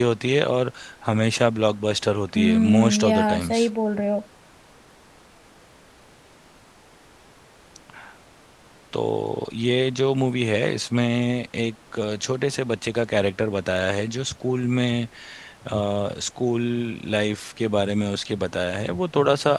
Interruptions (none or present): present